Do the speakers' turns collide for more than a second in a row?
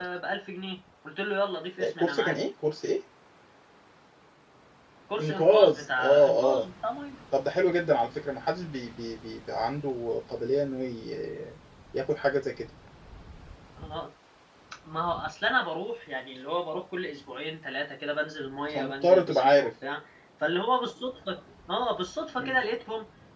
Yes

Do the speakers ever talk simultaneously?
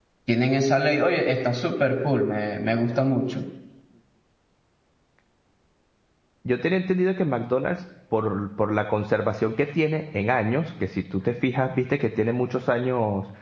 No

